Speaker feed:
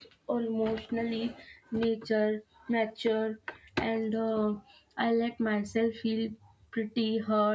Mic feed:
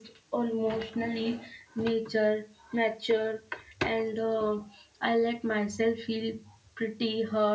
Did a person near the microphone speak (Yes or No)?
No